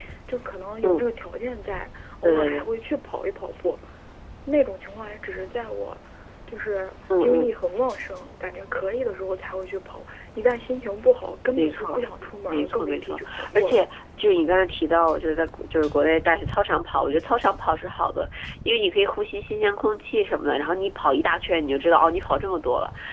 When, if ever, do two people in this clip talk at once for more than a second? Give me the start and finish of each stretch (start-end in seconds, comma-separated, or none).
12.5-13.8